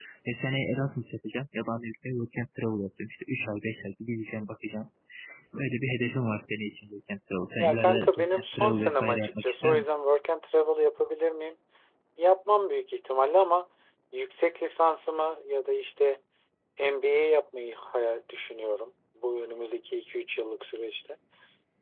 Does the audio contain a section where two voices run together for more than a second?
Yes, from 7.6 s

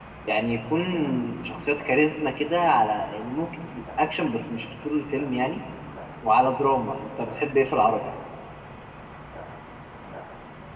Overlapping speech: No

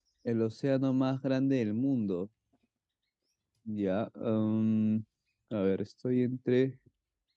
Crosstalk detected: No

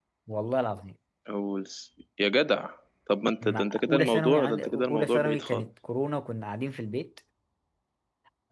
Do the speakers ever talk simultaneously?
Yes, from 3.4 s

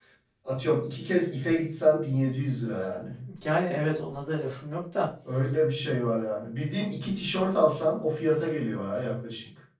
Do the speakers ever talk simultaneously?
No

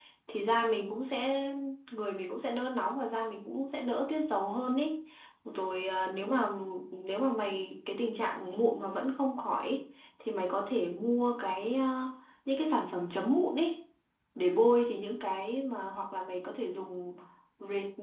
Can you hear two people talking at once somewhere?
No

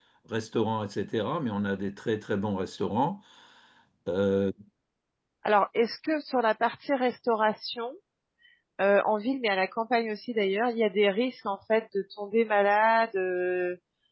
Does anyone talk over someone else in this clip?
No

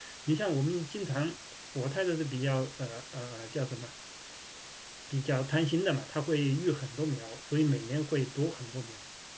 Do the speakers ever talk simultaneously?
No

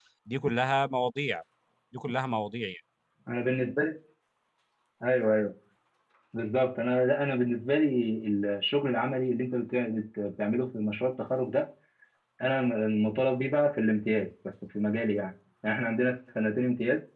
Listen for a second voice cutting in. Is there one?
No

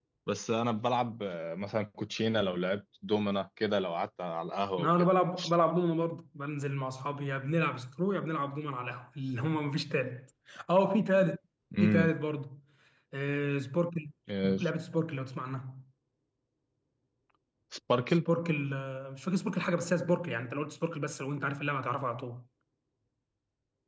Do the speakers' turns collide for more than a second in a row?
No

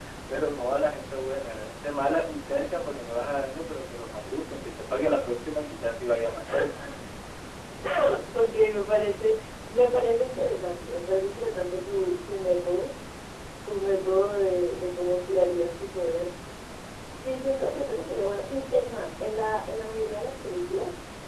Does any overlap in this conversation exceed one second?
No

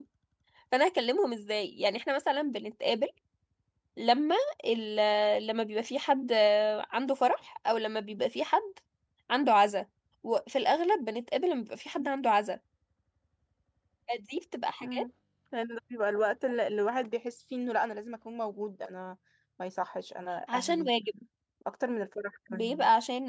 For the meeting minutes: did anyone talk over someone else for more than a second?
No

